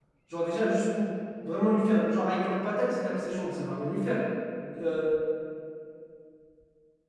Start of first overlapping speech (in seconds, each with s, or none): none